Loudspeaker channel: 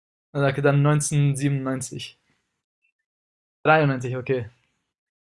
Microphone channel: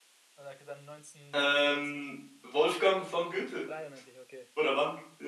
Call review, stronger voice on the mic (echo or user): user